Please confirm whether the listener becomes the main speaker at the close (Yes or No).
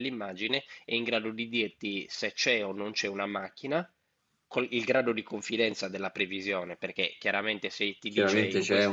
Yes